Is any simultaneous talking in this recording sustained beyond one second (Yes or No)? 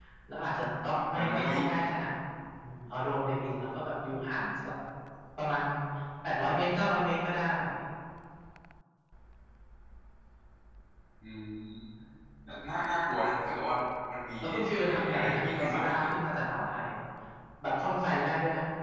Yes